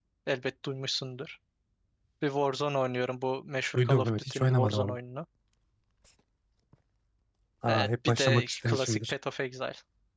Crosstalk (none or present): present